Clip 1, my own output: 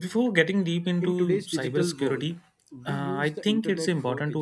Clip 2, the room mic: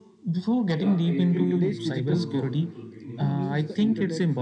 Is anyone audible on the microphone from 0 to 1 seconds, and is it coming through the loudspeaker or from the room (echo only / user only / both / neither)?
both